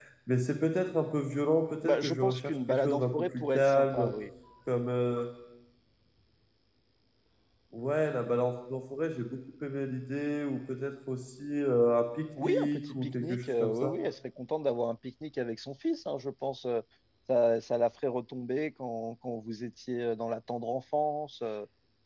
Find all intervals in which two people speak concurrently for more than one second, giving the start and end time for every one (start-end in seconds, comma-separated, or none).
1.8-4.1, 12.4-13.9